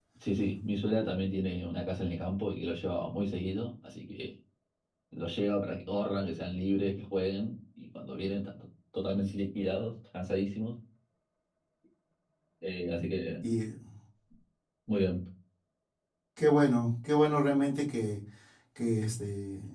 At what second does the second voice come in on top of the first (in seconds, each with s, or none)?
none